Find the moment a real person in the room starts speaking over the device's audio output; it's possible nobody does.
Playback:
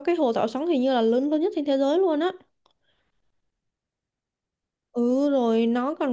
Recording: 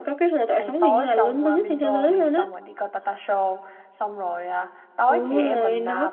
0.6 s

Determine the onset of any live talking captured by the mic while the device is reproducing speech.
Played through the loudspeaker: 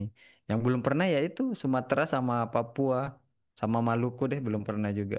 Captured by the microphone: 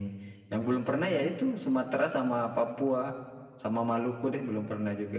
none

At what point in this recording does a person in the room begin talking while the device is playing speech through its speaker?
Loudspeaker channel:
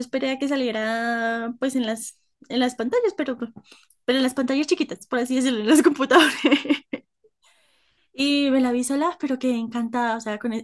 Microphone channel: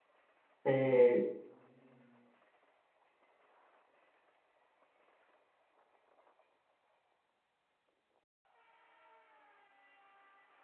0.6 s

